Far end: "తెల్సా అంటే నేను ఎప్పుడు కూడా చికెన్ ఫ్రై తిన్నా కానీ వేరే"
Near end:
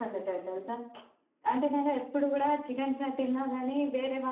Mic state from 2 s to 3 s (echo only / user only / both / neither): echo only